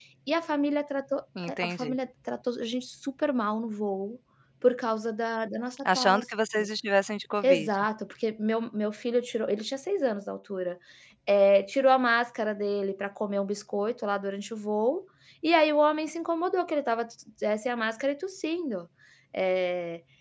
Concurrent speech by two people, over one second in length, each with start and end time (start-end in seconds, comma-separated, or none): none